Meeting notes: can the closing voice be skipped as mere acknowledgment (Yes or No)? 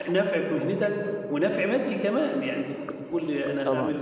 Yes